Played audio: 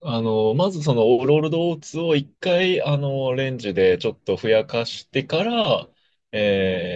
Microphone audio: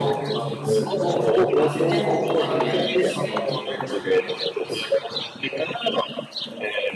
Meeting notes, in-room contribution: present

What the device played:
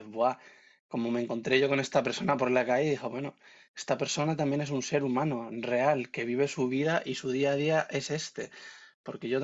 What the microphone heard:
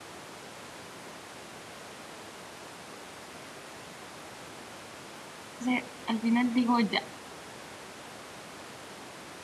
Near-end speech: present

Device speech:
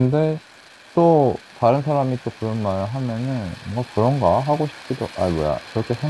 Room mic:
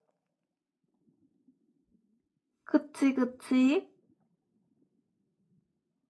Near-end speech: present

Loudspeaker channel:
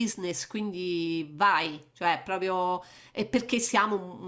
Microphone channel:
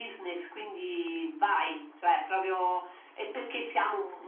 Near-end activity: none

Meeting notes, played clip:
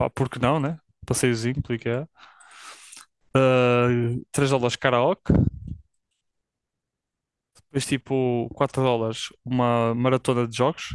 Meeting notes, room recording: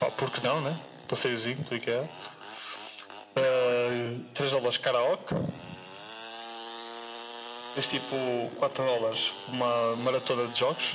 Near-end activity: present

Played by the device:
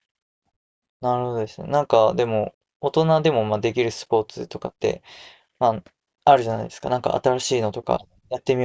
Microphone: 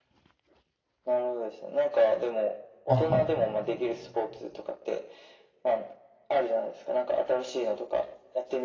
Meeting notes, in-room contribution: present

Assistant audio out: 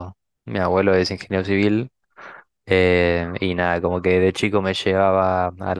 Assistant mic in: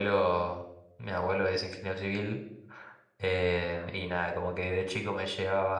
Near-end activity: none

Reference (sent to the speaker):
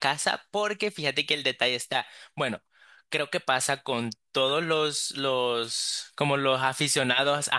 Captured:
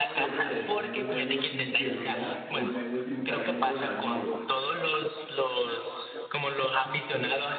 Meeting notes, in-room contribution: present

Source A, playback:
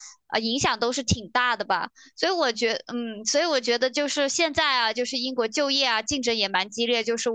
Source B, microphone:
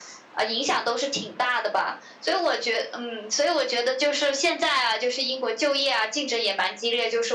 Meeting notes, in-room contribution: none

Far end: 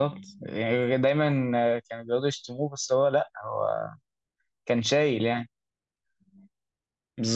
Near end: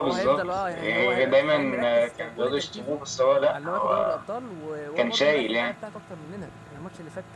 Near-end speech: present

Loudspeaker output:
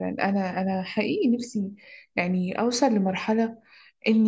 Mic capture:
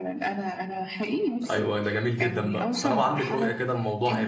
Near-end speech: present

